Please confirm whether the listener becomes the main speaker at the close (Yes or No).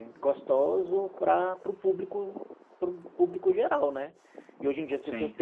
No